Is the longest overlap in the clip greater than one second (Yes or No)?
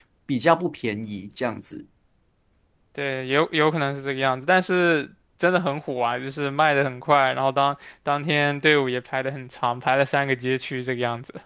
No